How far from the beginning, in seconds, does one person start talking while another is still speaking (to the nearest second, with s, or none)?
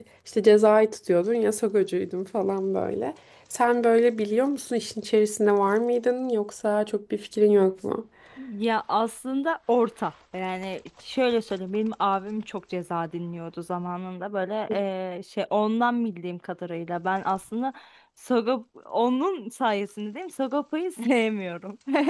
none